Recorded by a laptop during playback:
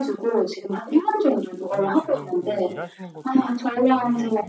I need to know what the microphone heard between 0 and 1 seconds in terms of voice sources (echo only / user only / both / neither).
echo only